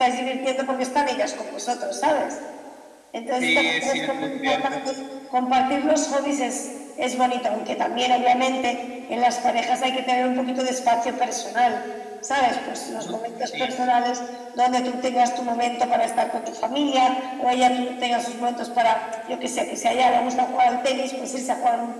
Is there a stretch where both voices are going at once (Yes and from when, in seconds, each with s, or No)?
Yes, from 3.4 s